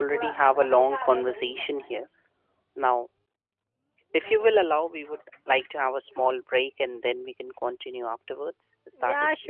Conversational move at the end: taking over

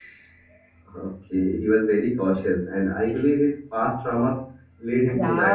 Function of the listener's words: taking over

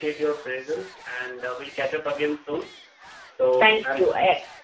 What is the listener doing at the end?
taking over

